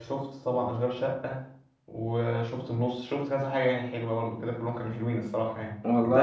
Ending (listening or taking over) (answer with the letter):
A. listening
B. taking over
A